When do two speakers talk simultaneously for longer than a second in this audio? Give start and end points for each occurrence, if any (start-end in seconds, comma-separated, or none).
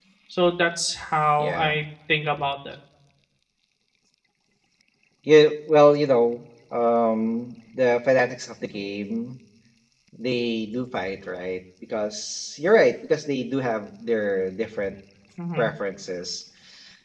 none